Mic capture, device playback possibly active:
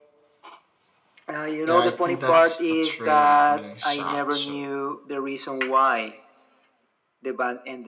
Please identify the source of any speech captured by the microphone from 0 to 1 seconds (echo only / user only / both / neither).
neither